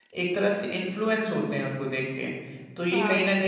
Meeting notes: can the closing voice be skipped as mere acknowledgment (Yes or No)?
Yes